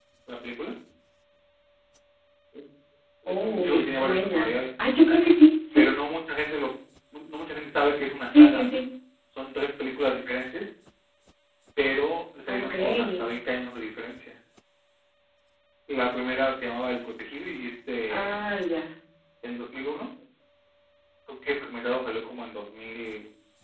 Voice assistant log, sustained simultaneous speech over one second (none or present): present